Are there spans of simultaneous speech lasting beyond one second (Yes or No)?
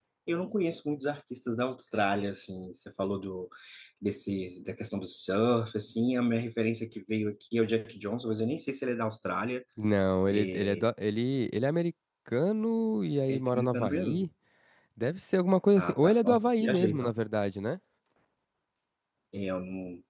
Yes